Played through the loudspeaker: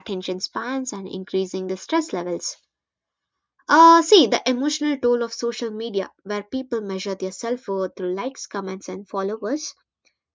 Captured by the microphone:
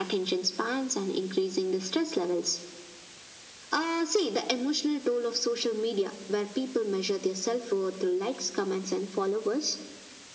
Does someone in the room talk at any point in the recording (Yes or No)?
No